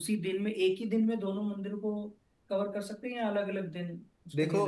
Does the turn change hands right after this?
Yes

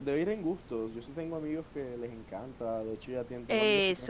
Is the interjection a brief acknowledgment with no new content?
Yes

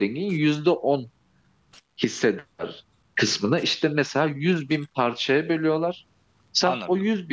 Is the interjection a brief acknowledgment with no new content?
Yes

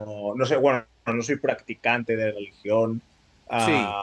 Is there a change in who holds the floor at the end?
No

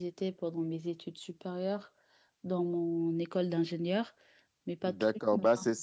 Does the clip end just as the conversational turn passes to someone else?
Yes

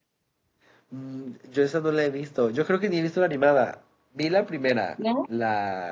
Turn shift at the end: No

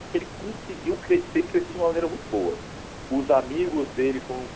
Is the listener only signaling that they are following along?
Yes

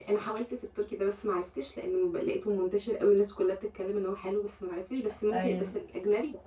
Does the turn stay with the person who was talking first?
Yes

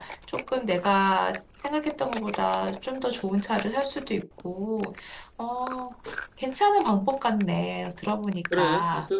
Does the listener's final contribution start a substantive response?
Yes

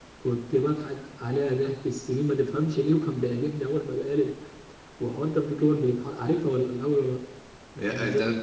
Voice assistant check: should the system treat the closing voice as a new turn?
Yes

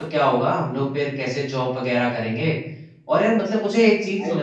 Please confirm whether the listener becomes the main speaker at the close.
No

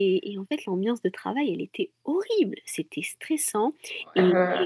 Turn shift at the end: No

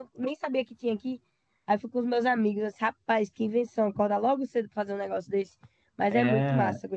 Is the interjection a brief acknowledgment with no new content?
No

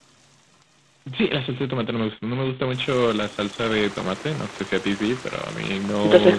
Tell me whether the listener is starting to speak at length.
Yes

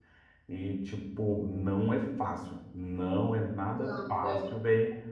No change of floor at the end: Yes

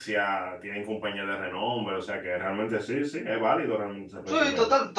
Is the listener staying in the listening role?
No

